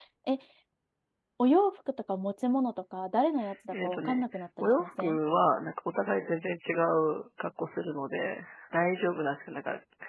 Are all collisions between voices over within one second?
No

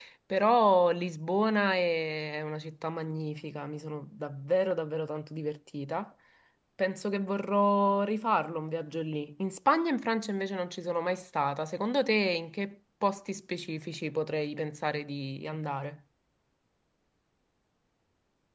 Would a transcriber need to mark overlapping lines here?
No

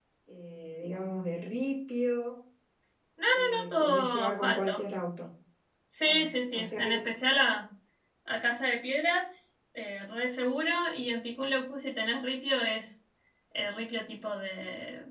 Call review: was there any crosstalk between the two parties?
Yes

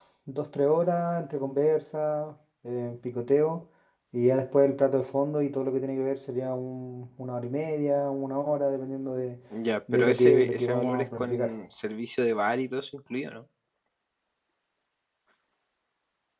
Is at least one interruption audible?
Yes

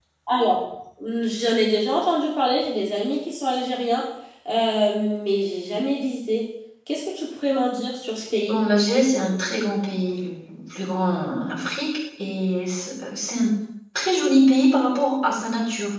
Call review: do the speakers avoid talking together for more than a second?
Yes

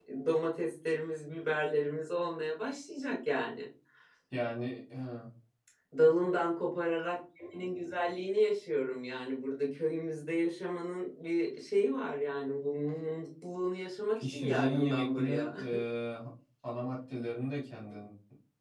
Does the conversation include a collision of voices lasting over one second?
Yes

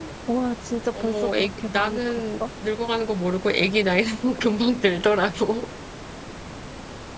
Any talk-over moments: Yes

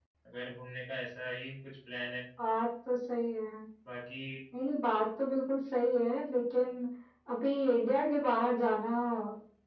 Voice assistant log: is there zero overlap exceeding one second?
Yes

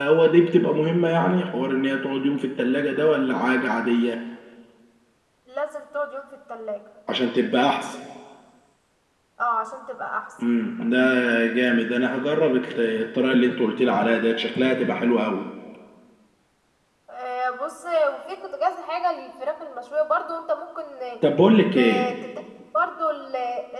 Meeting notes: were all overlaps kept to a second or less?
Yes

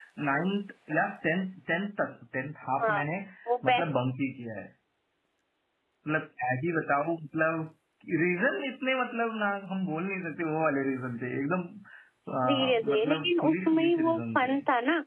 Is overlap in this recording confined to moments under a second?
No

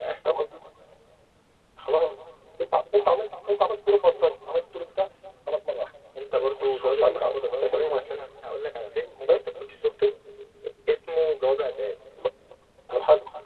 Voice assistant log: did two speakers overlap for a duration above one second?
Yes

